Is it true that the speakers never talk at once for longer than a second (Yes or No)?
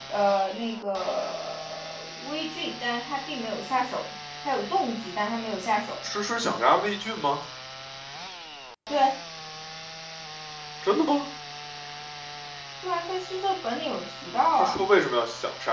Yes